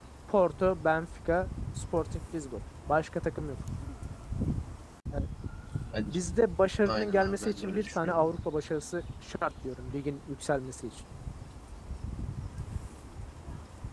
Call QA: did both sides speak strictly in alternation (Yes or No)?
No